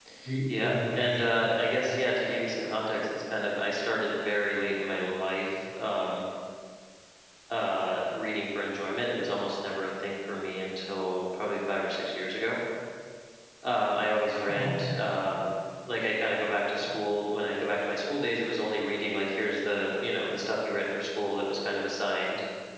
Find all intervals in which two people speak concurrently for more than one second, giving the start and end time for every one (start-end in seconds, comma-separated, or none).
0.6-1.9